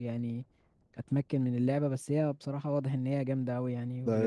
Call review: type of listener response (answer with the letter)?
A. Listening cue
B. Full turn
B